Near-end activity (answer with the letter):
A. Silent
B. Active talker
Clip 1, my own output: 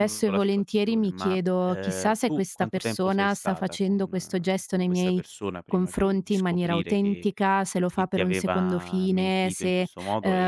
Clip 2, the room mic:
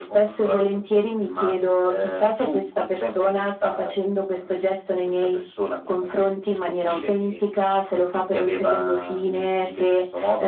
A